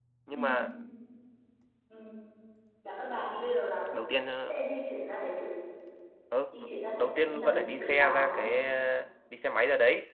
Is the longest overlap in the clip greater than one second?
Yes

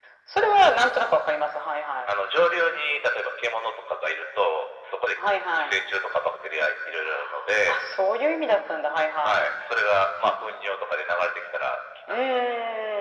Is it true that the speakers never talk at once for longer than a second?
Yes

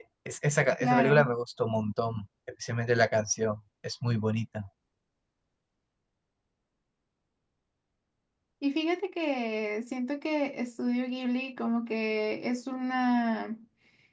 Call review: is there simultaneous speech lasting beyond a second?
No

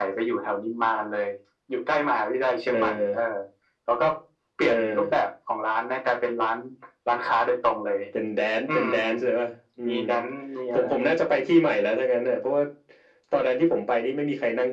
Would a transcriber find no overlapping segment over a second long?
Yes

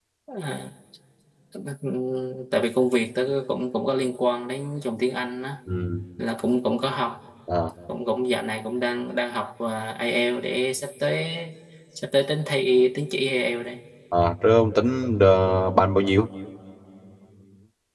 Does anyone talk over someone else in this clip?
No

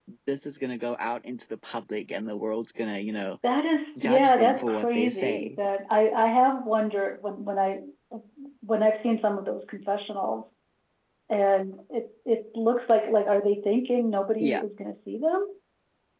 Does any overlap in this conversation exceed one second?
Yes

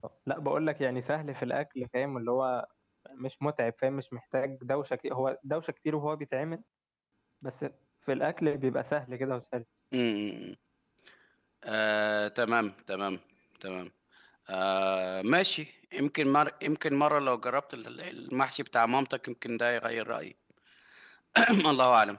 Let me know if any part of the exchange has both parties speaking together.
No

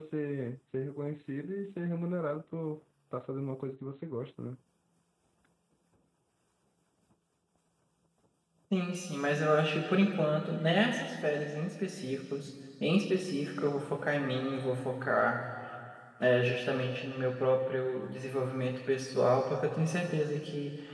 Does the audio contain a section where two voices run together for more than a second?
No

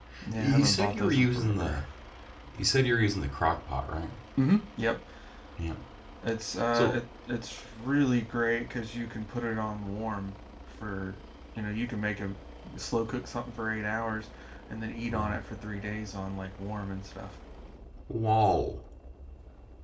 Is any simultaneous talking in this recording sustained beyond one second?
Yes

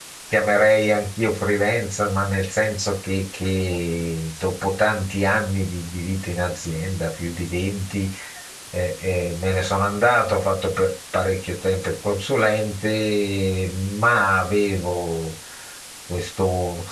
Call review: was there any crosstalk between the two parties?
No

